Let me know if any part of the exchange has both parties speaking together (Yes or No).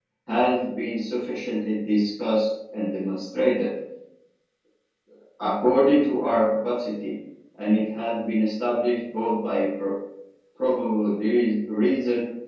No